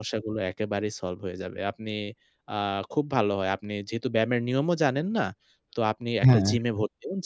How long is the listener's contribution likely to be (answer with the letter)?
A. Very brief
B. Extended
A